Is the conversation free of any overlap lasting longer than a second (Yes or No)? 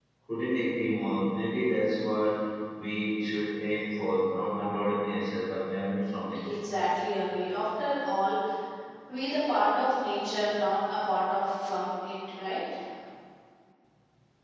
Yes